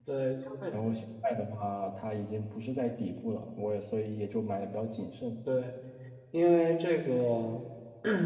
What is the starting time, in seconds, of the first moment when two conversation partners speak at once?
none

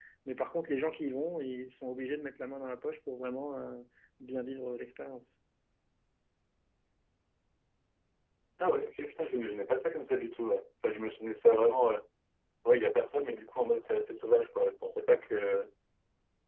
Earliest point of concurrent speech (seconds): none

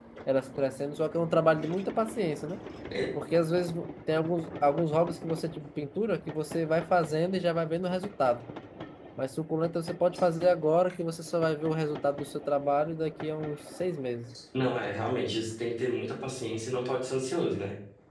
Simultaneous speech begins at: none

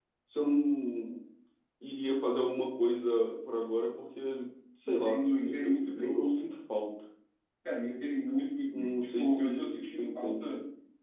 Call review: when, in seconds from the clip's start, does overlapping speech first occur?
5 s

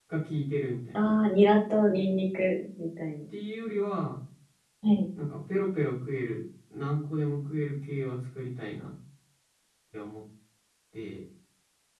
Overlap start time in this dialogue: none

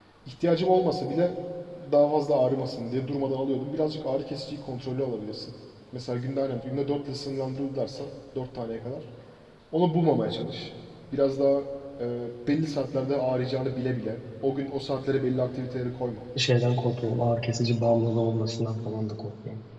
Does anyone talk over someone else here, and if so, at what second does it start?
none

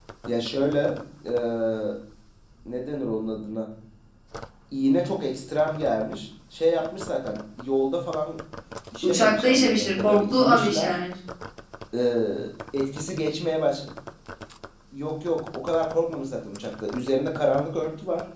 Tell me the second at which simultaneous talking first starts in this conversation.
9 s

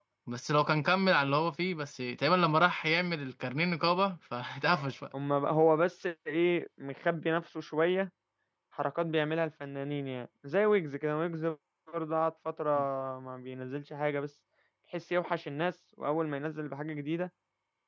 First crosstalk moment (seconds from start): none

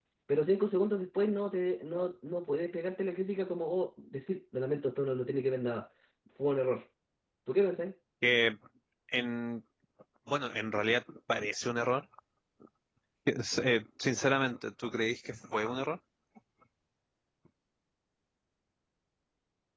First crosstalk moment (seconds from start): none

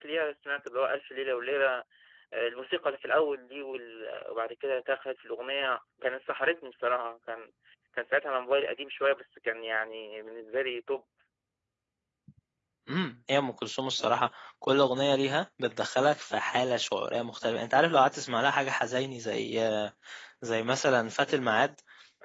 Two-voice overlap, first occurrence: none

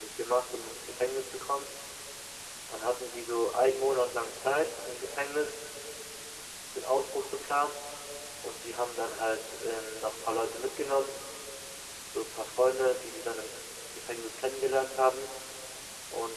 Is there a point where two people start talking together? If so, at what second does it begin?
none

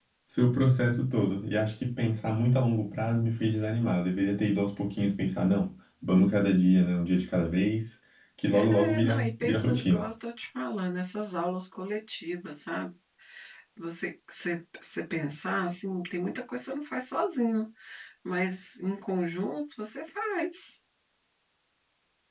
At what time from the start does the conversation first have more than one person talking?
9 s

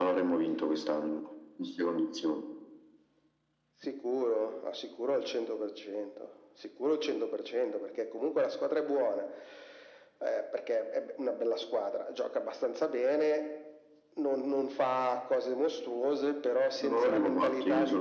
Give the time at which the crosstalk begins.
17 s

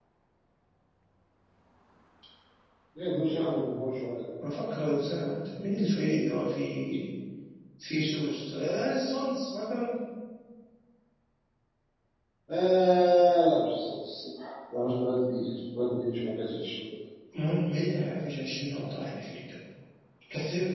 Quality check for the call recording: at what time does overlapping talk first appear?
none

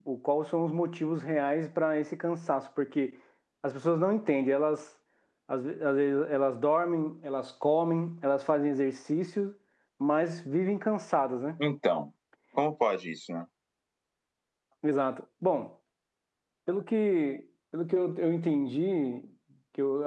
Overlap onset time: none

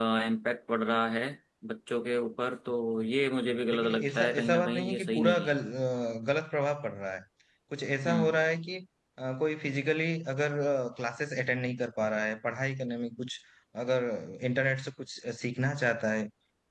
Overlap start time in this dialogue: 4 s

